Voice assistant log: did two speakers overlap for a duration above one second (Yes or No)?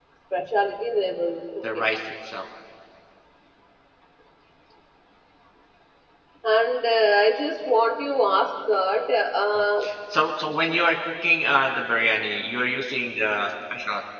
No